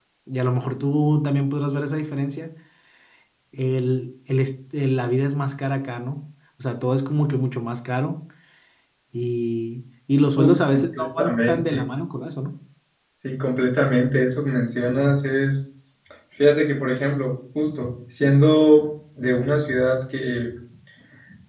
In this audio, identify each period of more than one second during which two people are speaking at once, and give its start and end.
10.4-11.8

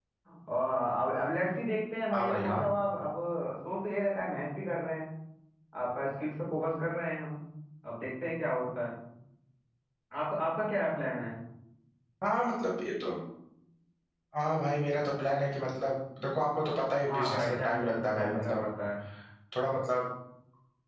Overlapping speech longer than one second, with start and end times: 17.1-18.6

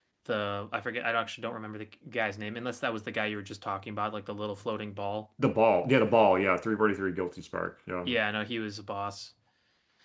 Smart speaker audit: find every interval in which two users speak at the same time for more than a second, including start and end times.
none

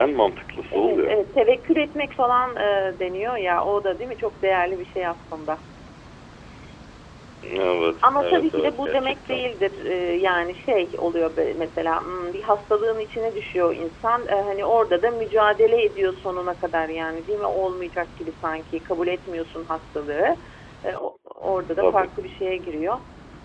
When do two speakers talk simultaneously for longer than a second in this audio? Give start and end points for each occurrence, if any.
8.0-9.4

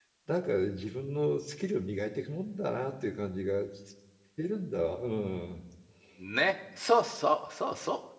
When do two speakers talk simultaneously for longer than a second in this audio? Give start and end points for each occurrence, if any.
none

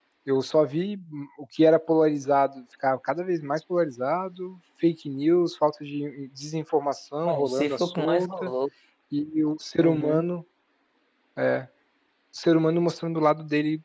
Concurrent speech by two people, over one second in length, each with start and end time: 7.2-8.5

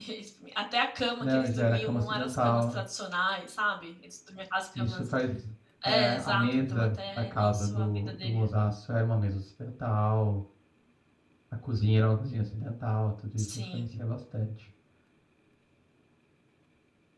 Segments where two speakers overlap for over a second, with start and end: 1.2-2.8, 5.8-8.5

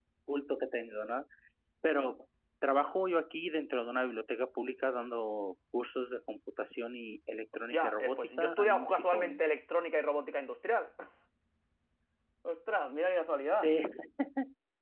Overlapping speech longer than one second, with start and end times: 7.5-9.4

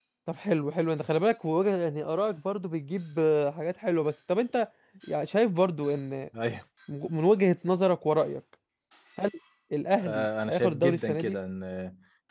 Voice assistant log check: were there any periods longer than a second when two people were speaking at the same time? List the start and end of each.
10.0-11.3

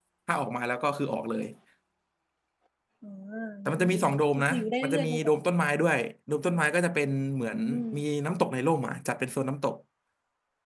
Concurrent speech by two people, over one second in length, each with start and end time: 3.6-5.3

